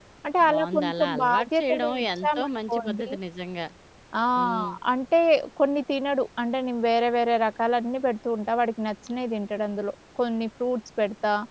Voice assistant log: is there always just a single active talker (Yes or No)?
No